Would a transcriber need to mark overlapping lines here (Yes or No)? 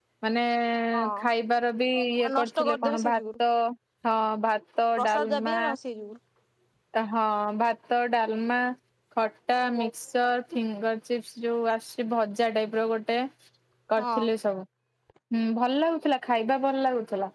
Yes